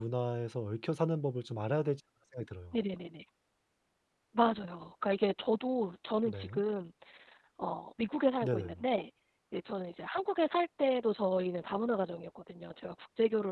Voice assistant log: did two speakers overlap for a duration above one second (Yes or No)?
No